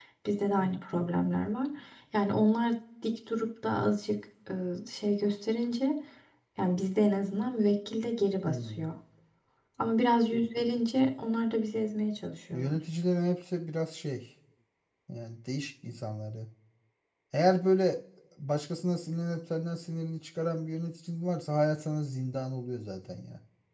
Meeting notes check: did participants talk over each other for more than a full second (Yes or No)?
No